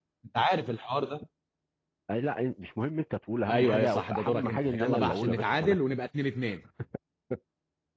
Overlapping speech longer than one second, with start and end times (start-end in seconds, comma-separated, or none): 3.5-5.8